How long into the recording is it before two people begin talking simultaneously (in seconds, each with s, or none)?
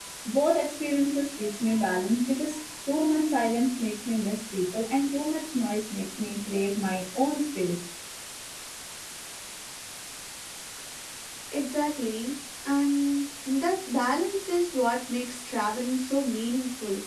none